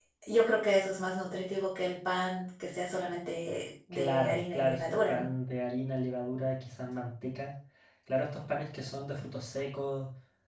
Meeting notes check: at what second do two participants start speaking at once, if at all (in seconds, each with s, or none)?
3.9 s